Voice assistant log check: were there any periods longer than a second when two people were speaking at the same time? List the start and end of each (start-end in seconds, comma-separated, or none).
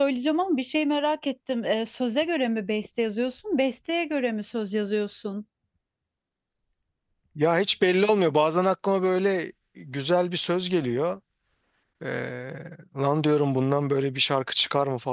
none